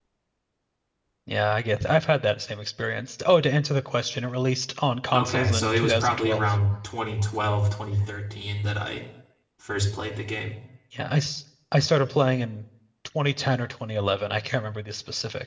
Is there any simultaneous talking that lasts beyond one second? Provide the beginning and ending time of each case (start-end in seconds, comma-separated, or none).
5.1-6.4